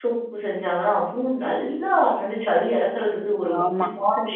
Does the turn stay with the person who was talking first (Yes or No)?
No